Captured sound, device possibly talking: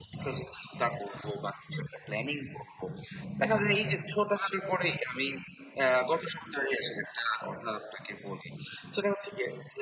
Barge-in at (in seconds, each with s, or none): none